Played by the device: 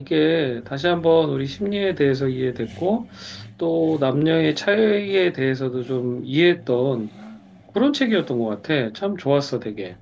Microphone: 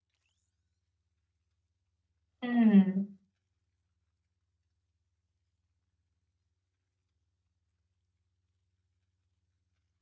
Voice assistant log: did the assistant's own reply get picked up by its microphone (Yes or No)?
No